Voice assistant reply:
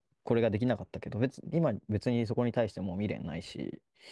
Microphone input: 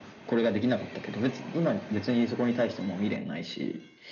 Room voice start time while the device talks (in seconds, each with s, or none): none